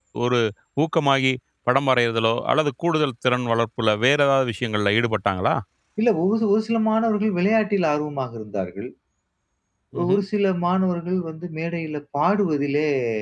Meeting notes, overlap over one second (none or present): none